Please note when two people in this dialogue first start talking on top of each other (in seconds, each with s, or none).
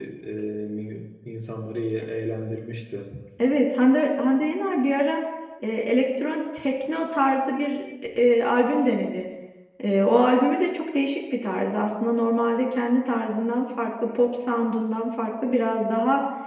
none